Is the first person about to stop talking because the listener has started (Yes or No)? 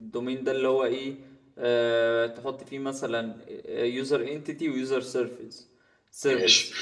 No